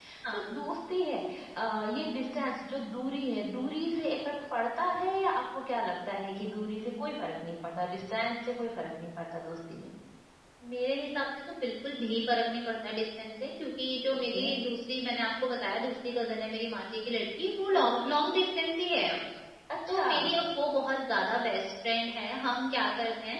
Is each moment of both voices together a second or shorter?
Yes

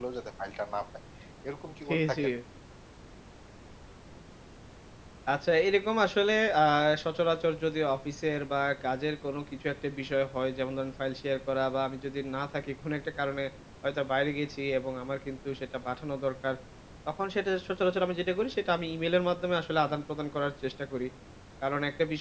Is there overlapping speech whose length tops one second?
No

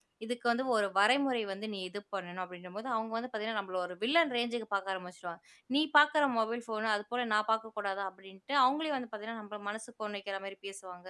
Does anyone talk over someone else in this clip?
No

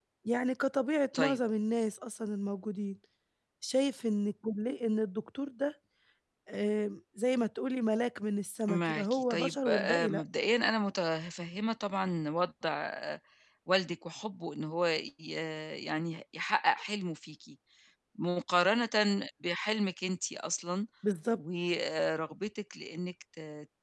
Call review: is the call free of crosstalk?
No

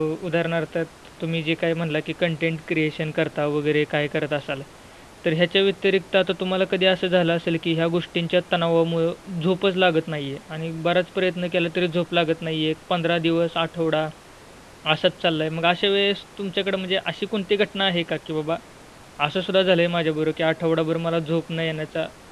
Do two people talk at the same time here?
No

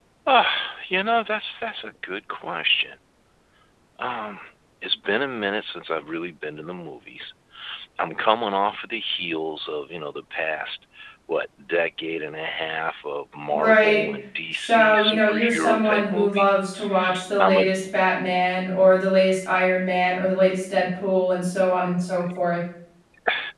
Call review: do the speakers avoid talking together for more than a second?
No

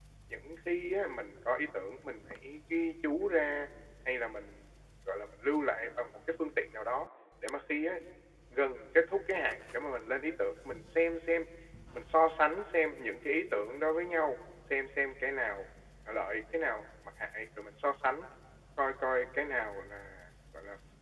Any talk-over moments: No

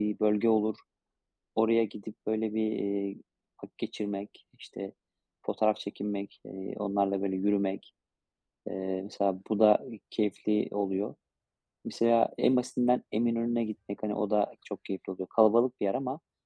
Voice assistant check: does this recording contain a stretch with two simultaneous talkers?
No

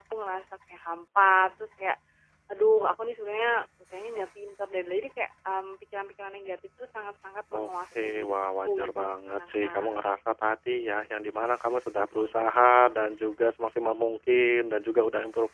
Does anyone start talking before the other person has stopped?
Yes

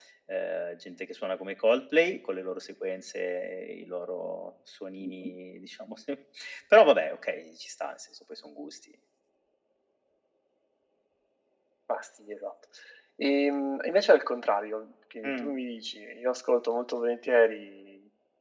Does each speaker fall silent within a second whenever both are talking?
Yes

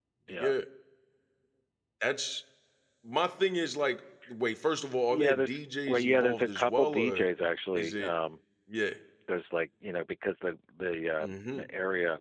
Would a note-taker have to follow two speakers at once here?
Yes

